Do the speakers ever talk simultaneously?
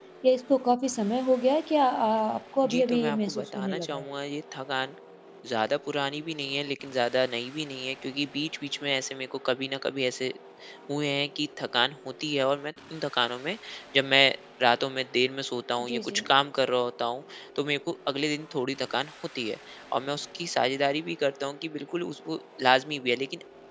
Yes, from 2.6 s

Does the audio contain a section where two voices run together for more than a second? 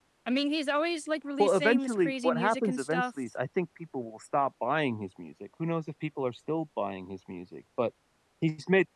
Yes, from 1.4 s

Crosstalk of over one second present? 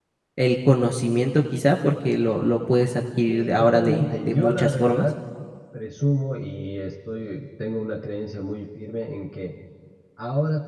Yes, from 3.3 s

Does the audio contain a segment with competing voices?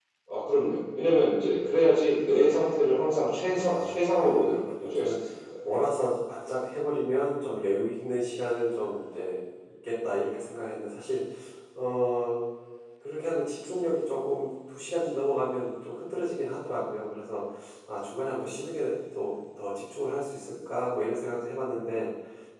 Yes, from 3.5 s

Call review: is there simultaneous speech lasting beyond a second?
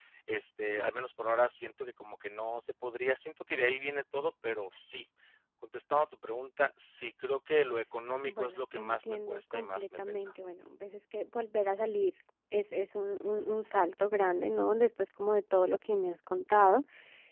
Yes, from 8.3 s

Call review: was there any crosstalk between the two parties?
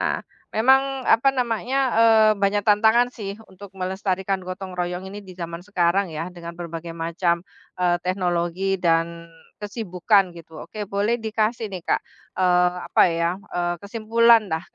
No

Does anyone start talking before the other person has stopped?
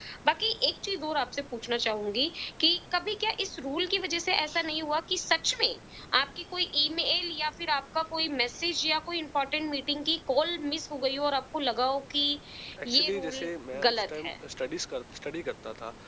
Yes, from 12.8 s

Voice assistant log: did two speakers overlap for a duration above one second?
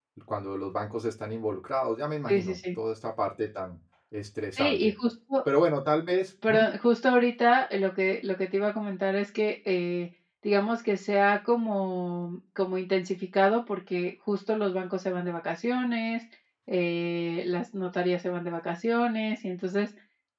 No

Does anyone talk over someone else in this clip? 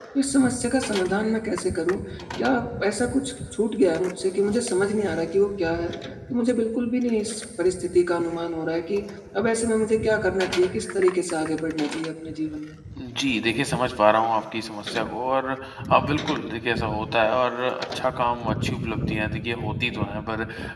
No

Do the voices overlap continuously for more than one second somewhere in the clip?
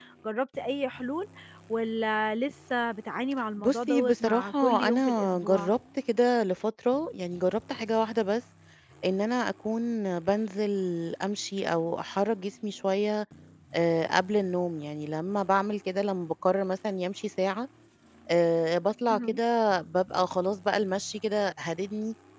Yes, from 3.6 s

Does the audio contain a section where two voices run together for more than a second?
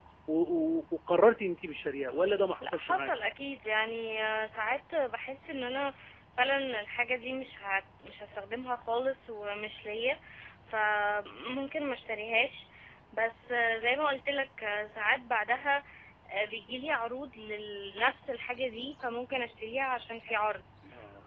No

